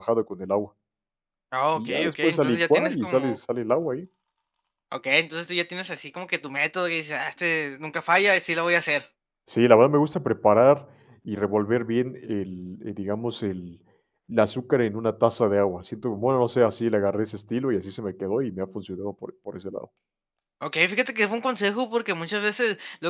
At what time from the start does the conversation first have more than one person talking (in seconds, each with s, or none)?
1.8 s